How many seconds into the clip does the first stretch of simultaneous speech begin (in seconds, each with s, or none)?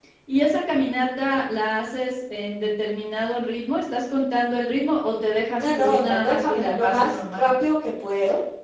5.6 s